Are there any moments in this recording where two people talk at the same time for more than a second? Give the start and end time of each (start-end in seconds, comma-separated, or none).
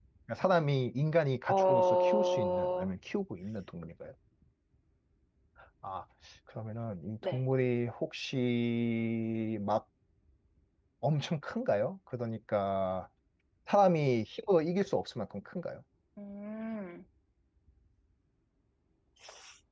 1.5-2.9